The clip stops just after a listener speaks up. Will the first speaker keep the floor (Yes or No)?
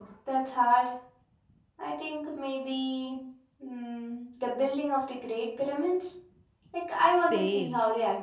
No